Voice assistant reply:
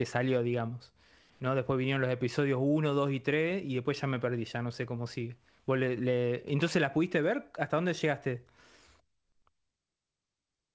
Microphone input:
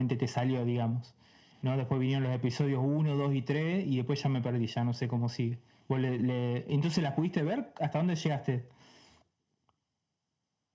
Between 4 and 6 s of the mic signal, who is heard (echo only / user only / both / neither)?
echo only